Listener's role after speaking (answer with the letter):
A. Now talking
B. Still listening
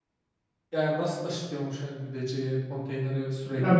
A